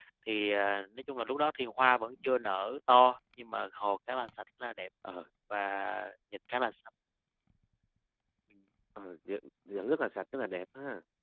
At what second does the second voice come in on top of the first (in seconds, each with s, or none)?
none